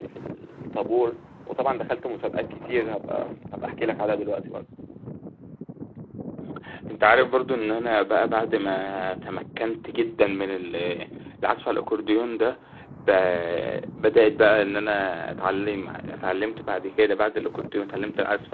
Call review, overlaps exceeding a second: none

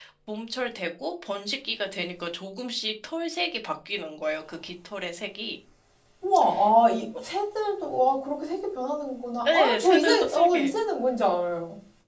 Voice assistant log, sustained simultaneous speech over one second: present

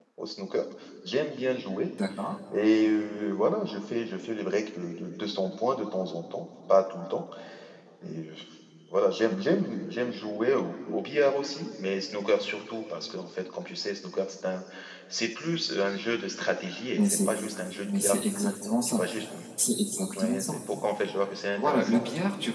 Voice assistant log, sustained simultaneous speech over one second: none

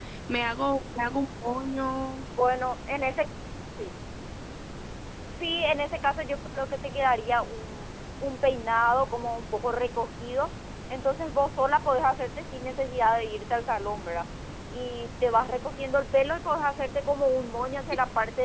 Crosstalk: none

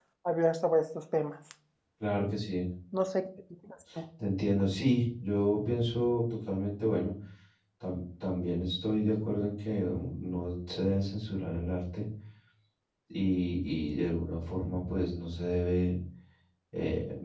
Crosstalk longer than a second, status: none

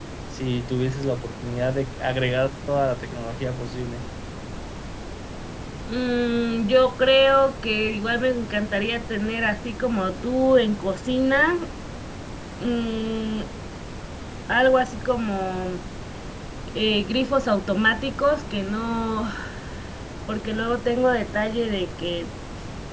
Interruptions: none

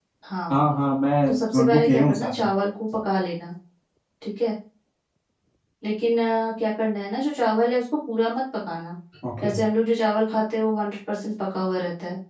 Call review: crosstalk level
present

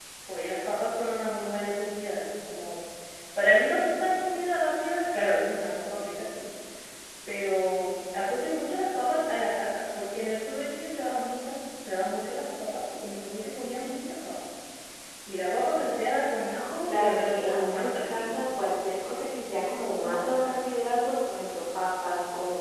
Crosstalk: present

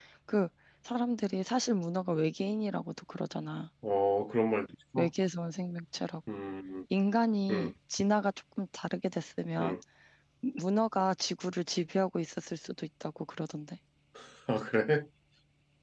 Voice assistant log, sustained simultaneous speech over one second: none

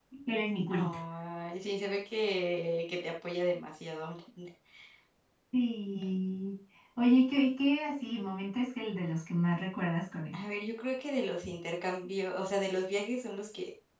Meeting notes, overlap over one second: none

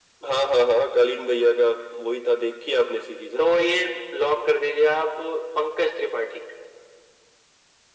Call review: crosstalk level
none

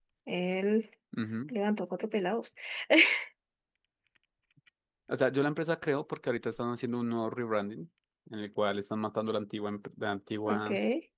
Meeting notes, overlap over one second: none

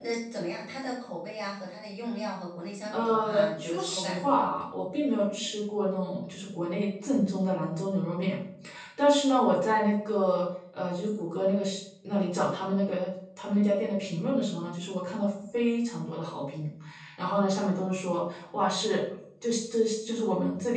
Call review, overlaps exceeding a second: present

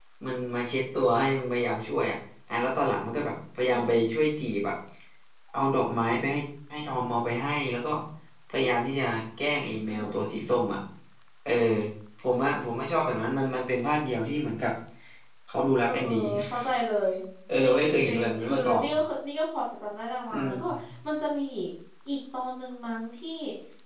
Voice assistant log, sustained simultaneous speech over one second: present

